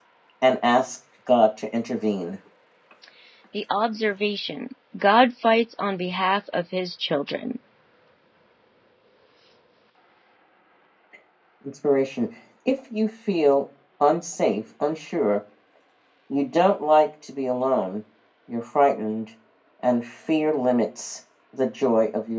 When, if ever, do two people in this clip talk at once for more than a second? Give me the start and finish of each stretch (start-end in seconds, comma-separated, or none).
none